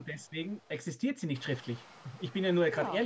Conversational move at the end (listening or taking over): taking over